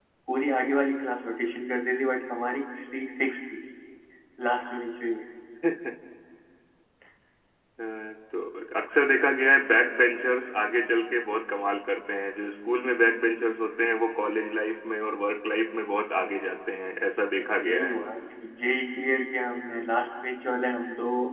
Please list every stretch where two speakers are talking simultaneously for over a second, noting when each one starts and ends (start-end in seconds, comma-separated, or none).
none